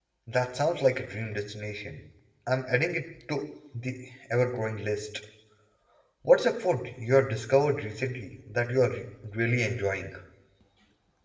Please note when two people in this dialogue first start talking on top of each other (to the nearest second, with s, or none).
none